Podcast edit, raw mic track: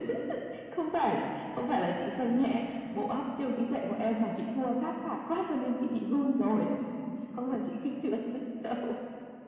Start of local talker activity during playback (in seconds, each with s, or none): none